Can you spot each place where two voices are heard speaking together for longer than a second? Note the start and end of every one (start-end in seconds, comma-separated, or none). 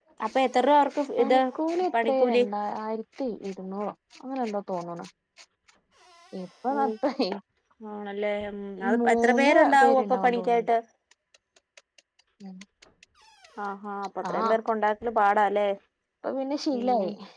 9.0-10.7